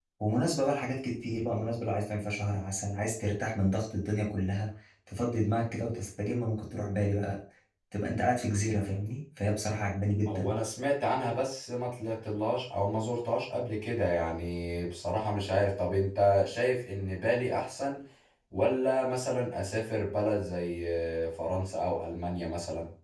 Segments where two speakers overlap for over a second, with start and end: none

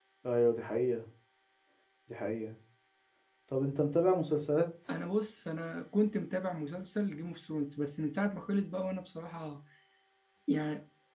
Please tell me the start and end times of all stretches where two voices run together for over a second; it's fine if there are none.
none

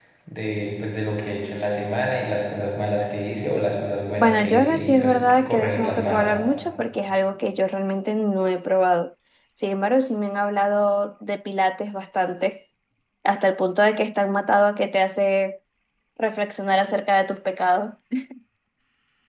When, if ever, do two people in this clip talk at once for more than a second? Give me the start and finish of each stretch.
4.2-6.3

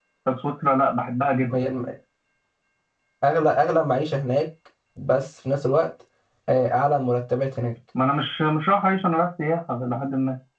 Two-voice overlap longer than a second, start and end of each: none

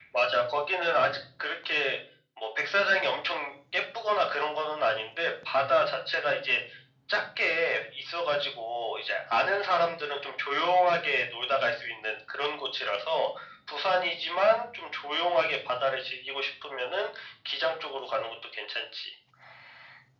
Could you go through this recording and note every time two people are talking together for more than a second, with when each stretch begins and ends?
none

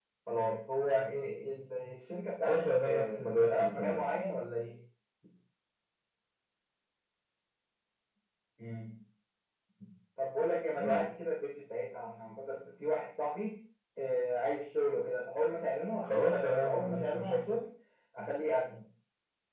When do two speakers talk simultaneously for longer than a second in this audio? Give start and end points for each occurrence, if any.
2.4-4.1, 16.0-17.5

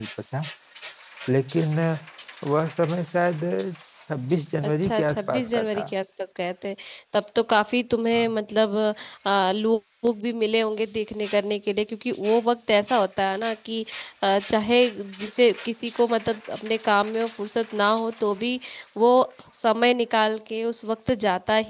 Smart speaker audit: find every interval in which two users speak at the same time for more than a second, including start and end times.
4.7-5.9

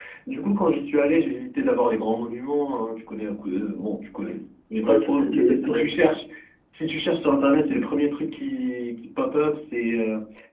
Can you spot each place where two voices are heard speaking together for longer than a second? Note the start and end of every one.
4.8-6.1

